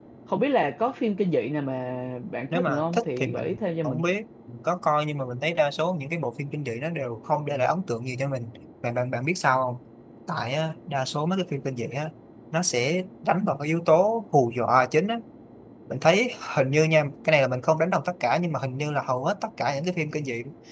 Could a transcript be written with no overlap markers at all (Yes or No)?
No